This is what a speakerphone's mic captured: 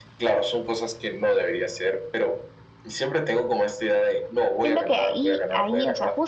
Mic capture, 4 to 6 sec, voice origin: both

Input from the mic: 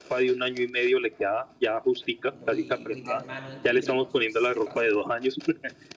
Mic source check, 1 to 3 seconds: both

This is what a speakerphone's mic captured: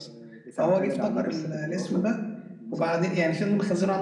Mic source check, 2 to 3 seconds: echo only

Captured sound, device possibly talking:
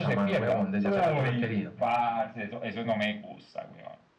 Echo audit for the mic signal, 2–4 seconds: echo only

